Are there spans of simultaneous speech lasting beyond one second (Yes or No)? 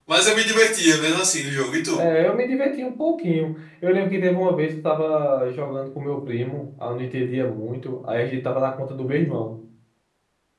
No